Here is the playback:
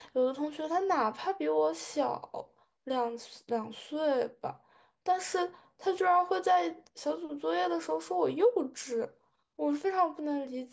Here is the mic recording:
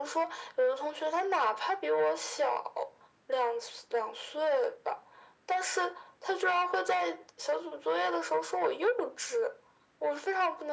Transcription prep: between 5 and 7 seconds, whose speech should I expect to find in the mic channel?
echo only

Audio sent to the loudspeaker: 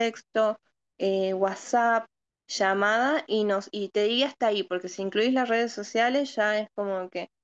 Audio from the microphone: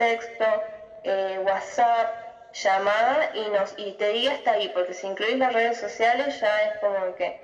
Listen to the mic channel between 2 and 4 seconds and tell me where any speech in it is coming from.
echo only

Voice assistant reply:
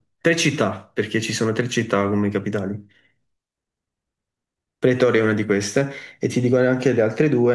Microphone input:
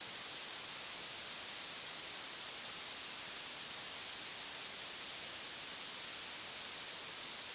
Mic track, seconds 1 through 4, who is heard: neither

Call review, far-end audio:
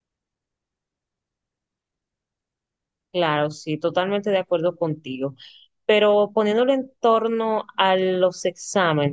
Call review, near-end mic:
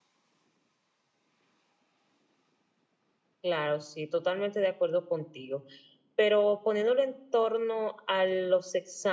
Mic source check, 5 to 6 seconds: echo only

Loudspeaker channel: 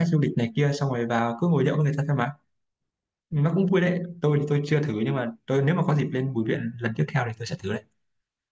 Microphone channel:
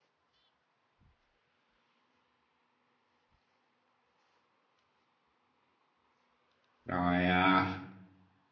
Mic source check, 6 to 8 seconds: user only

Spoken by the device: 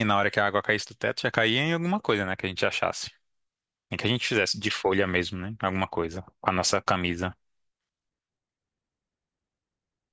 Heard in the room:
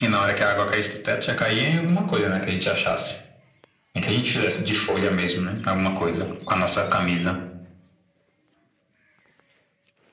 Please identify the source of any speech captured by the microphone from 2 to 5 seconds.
echo only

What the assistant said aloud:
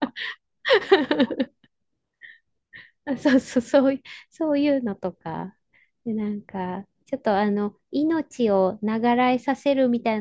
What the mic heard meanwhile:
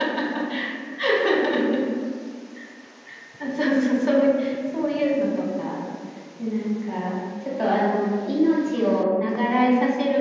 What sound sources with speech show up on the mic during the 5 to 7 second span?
echo only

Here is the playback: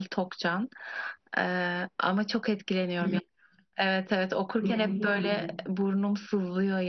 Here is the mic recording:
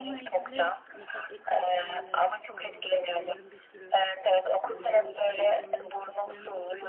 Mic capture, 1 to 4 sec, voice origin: both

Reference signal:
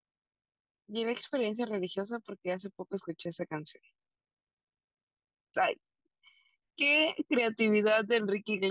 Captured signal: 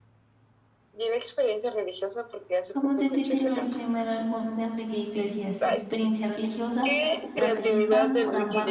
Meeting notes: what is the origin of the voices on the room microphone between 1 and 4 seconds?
both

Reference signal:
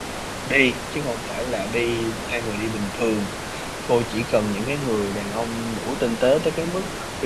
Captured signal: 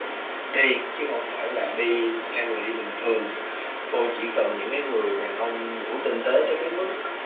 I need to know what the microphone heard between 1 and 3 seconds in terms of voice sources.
echo only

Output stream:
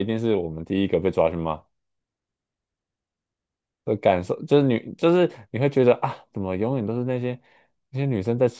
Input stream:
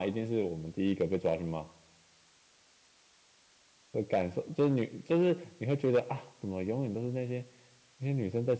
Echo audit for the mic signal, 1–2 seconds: echo only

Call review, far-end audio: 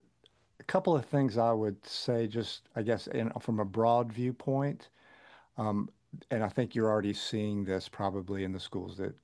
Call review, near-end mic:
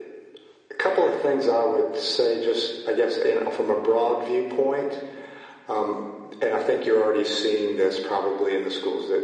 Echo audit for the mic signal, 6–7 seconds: echo only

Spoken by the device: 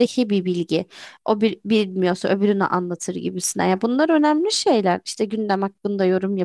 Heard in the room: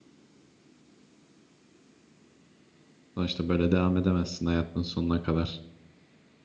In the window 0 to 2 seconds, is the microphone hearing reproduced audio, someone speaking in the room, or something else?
neither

